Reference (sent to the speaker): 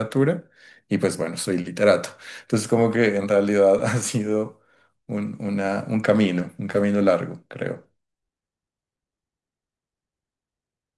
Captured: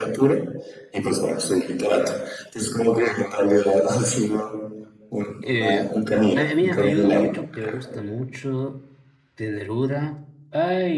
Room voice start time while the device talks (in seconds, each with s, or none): 5.4 s